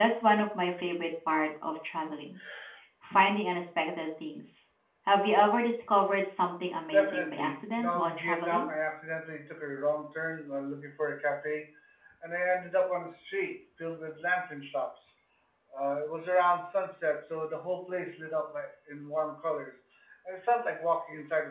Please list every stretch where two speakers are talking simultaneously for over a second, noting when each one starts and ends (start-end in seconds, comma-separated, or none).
6.9-8.7